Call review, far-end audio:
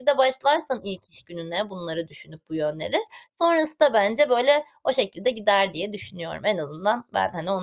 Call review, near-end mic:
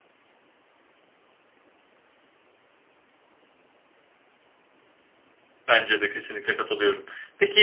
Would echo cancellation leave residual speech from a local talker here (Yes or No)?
Yes